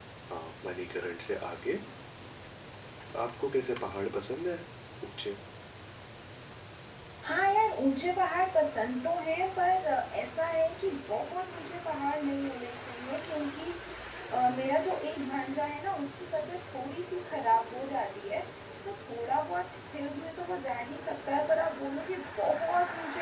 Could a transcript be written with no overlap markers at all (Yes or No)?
Yes